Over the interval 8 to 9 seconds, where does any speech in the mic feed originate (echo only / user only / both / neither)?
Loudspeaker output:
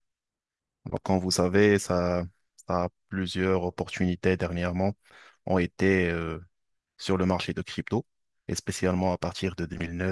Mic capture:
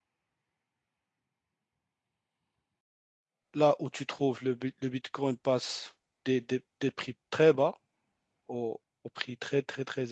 user only